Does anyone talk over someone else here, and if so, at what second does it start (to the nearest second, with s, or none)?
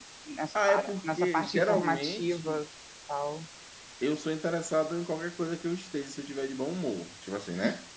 1 s